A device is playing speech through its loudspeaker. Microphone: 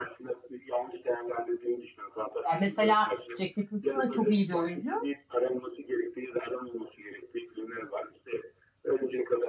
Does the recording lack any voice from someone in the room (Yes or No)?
No